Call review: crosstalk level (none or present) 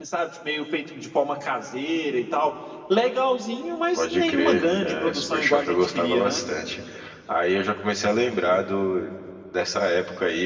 present